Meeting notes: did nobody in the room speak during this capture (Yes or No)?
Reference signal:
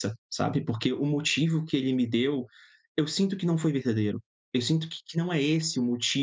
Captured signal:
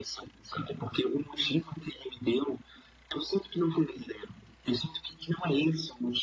Yes